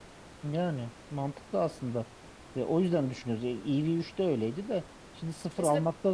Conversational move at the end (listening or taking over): listening